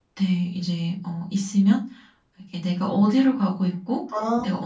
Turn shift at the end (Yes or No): No